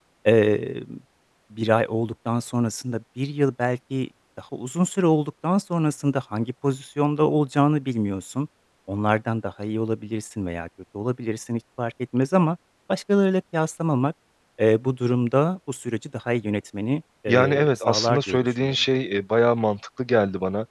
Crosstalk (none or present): present